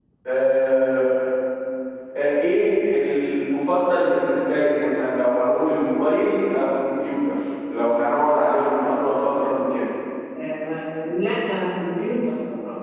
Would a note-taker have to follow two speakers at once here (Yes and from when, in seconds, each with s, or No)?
No